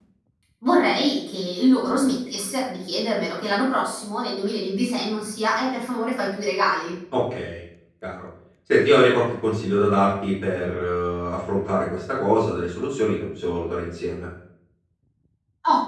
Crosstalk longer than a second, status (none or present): none